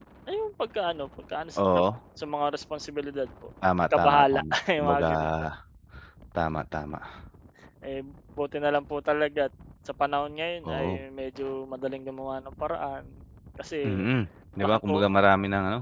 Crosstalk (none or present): present